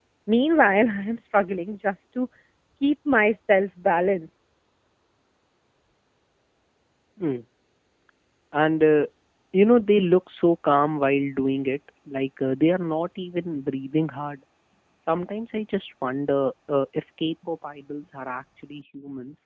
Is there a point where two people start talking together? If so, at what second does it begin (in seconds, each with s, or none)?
none